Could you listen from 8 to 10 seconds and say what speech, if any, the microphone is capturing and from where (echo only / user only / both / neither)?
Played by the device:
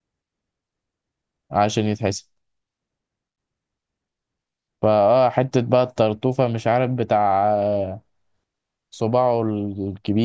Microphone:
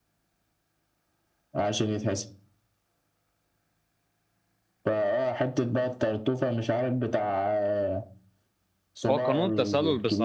both